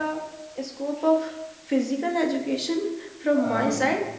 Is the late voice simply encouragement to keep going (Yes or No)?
Yes